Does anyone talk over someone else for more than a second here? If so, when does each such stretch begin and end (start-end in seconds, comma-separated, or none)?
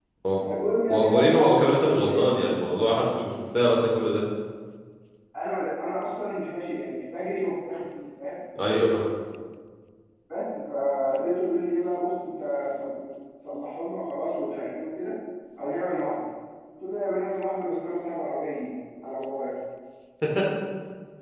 0.9-2.3